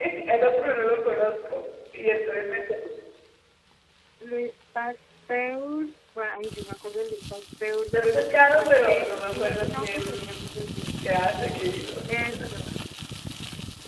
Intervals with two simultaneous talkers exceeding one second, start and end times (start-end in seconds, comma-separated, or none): 7.9-10.3